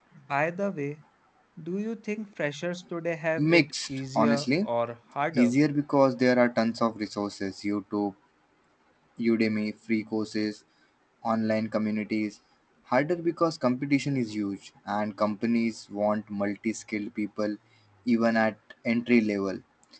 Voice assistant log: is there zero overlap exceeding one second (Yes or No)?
No